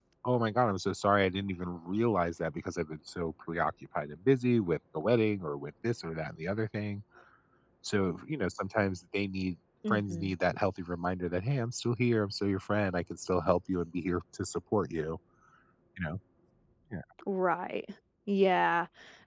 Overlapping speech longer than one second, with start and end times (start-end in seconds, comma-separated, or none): none